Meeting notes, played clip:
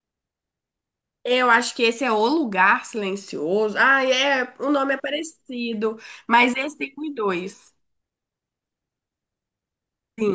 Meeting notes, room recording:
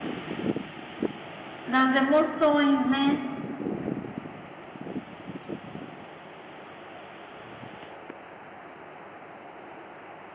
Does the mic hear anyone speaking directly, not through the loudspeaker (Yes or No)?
Yes